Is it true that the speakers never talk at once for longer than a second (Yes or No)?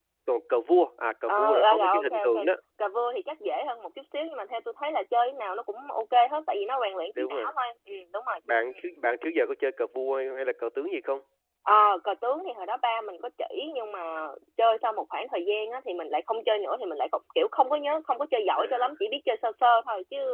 No